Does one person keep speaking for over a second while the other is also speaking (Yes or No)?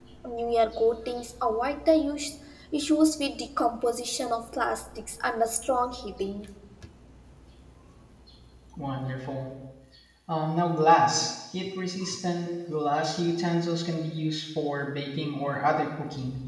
No